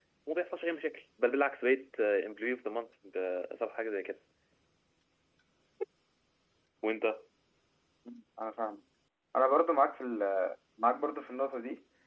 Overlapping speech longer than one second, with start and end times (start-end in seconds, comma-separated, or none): none